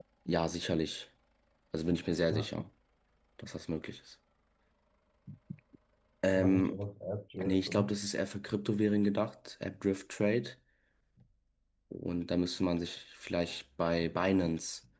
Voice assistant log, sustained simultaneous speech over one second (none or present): none